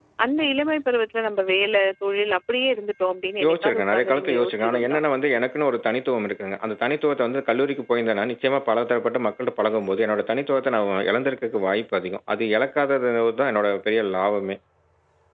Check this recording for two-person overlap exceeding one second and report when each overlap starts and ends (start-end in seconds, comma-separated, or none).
3.4-5.0